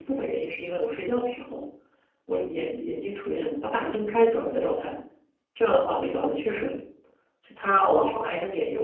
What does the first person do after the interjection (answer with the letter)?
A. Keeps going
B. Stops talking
A